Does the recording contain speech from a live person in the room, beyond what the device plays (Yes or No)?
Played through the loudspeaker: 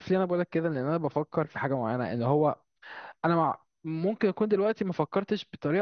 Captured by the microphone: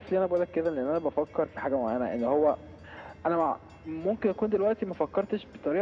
No